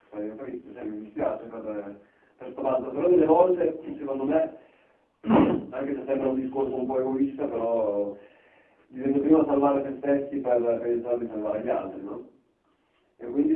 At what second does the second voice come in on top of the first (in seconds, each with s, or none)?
none